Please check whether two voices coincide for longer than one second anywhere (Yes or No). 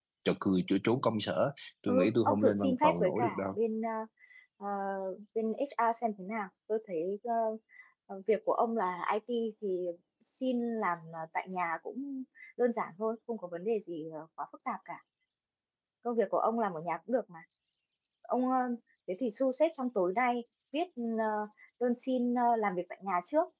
Yes